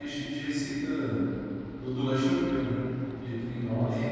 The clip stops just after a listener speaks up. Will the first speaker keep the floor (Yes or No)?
No